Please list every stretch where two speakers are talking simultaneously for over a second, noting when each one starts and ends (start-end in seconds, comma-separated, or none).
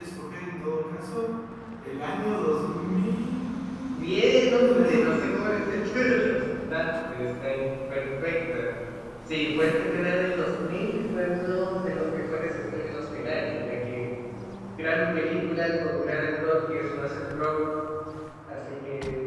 3.9-5.2